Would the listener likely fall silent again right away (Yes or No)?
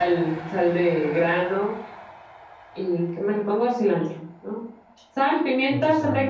Yes